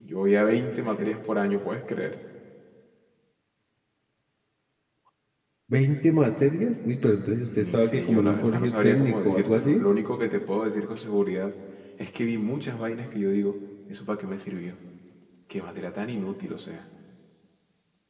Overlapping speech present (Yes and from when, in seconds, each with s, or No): Yes, from 7.7 s